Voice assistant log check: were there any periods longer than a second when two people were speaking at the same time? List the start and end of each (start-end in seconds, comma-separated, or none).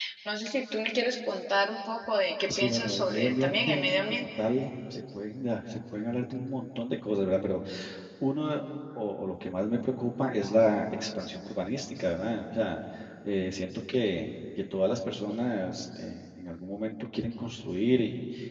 2.6-4.2